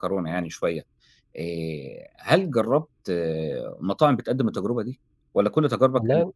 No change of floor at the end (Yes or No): Yes